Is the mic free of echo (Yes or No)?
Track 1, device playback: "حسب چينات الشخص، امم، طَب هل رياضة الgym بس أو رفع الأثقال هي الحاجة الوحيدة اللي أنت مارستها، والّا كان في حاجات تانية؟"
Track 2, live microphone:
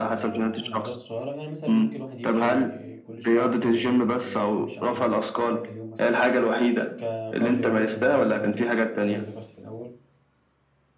No